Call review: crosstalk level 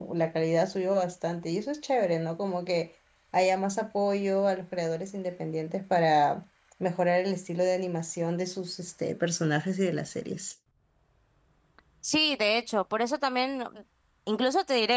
none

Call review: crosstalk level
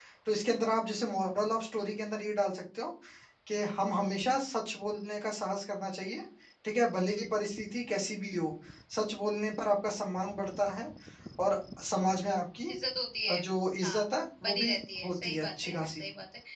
present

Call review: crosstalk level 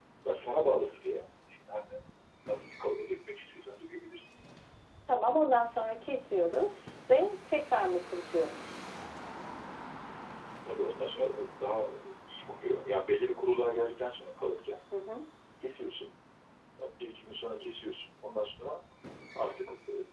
none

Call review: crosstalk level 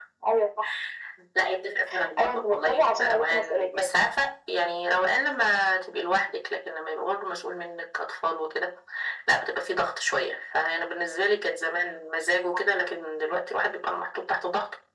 present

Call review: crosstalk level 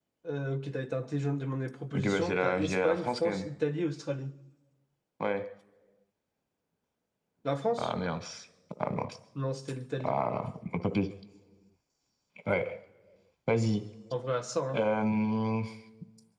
present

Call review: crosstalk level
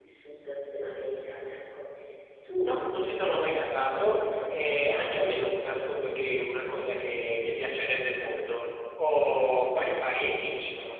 present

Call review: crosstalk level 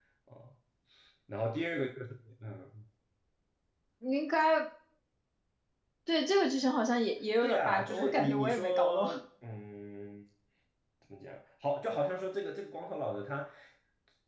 present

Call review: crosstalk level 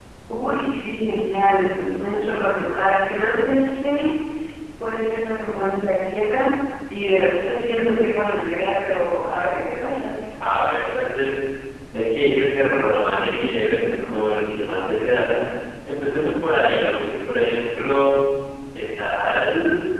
none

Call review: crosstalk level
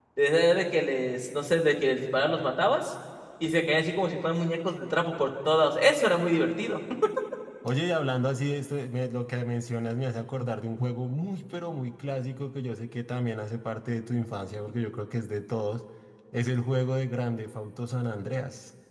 none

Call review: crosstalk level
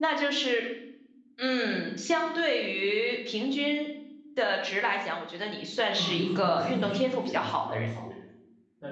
present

